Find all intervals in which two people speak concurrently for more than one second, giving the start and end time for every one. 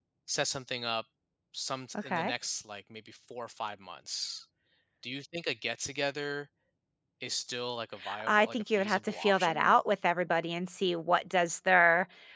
8.3-9.7

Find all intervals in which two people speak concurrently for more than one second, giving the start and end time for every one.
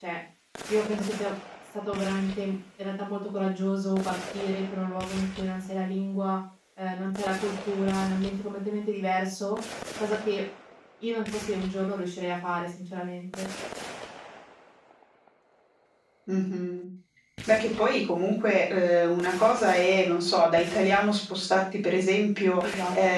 none

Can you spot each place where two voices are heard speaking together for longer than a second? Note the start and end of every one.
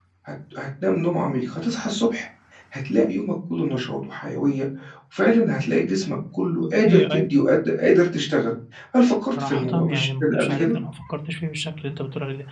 9.3-10.7

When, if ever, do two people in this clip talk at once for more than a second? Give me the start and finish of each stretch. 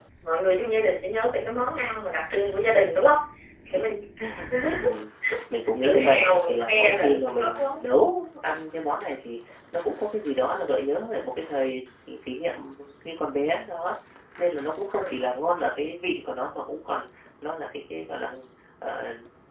5.8-7.7

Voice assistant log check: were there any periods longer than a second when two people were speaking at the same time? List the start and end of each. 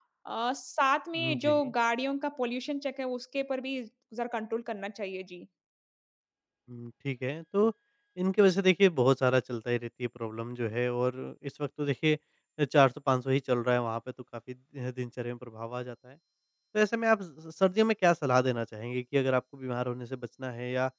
none

